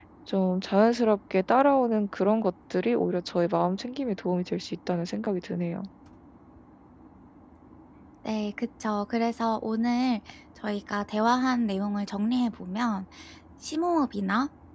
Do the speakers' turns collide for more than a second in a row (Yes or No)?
No